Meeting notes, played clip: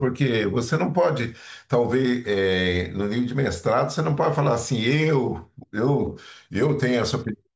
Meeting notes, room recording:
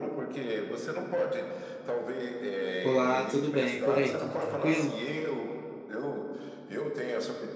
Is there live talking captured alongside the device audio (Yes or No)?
Yes